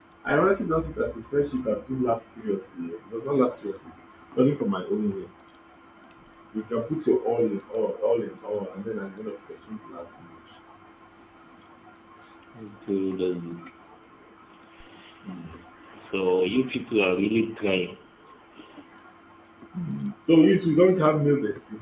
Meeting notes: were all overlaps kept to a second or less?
Yes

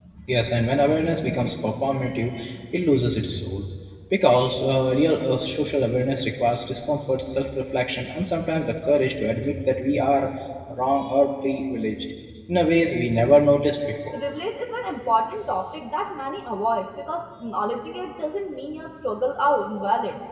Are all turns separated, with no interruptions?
Yes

